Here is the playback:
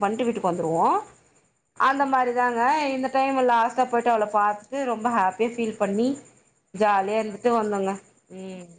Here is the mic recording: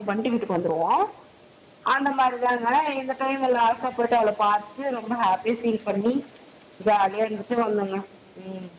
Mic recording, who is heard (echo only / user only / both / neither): echo only